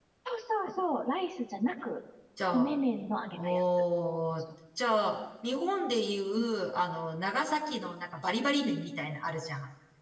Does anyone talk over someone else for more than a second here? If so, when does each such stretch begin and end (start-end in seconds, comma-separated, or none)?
none